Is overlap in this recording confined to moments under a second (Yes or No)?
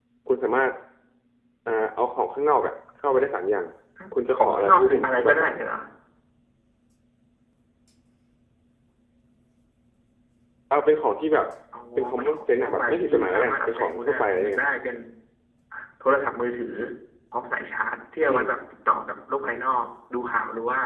No